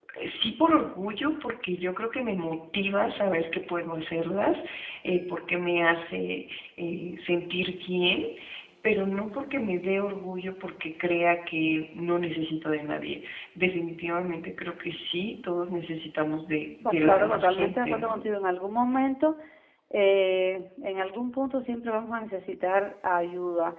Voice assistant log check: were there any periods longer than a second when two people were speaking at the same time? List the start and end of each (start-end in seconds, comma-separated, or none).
16.8-18.2